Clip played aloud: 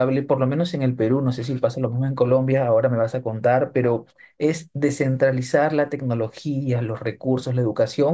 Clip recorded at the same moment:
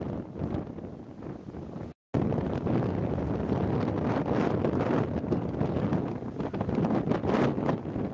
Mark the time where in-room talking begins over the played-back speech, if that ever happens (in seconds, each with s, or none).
none